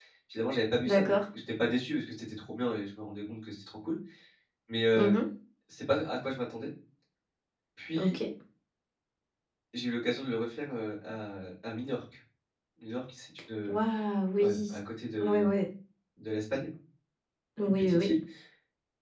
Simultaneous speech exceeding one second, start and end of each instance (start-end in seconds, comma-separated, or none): none